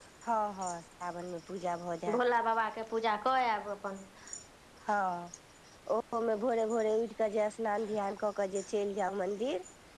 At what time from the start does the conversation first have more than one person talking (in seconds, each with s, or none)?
none